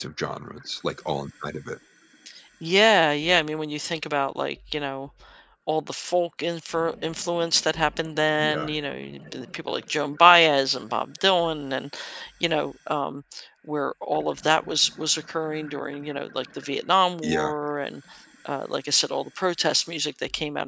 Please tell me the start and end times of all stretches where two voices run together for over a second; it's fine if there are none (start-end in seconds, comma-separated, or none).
none